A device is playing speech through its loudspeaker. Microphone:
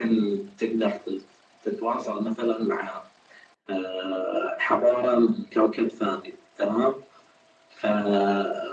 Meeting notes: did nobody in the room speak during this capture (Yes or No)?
Yes